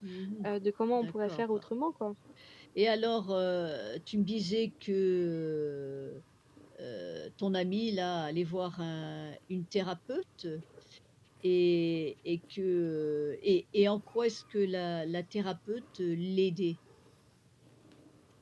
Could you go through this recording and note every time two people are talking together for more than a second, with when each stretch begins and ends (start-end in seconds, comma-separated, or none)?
none